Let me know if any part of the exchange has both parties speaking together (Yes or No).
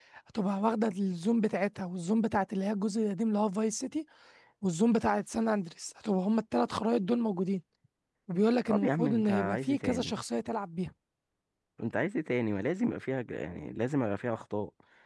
Yes